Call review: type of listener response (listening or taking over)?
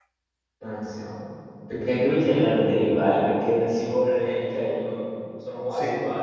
taking over